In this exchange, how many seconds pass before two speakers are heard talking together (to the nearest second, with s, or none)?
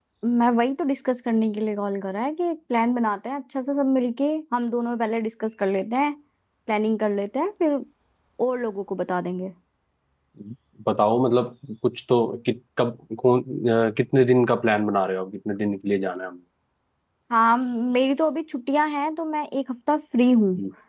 none